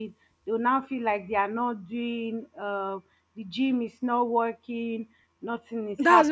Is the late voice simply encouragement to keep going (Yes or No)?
No